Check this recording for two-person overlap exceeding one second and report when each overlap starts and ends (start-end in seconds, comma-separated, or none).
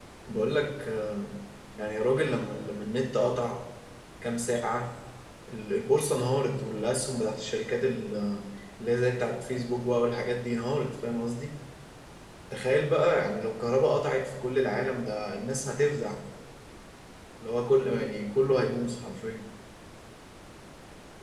none